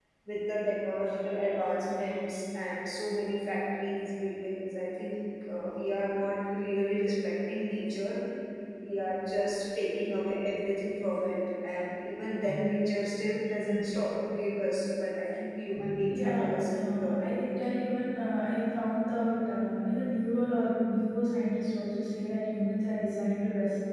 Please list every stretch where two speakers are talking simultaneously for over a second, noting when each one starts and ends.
16.1-17.5

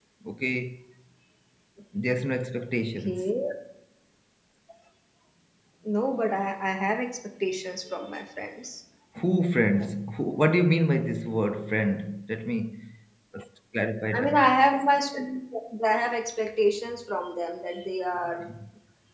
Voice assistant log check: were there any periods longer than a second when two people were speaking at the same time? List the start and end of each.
none

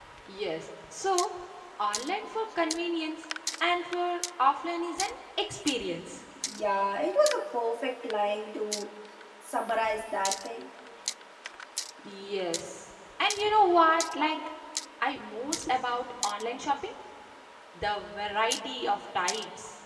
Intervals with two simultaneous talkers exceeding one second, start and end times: none

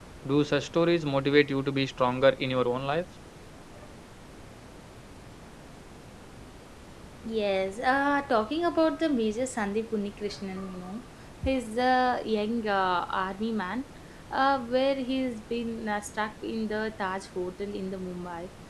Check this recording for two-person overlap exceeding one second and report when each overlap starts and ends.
none

